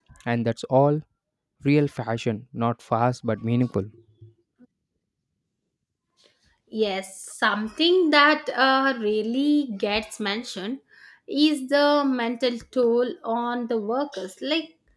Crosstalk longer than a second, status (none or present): none